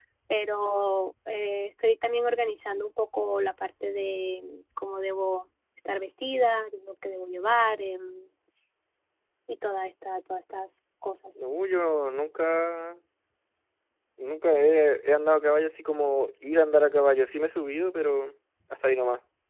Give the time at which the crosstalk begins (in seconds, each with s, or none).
none